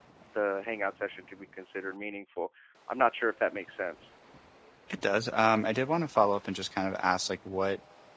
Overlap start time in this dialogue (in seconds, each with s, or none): none